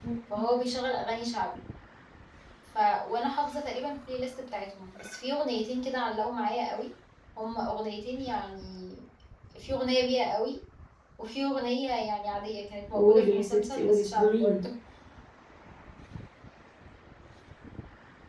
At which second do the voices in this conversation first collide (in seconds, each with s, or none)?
12.9 s